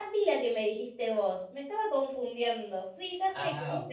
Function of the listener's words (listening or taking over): listening